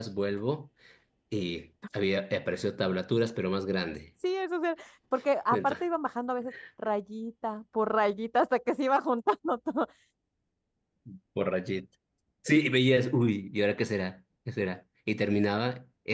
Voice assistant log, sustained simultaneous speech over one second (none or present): none